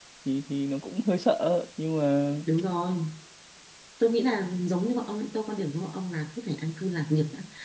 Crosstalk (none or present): none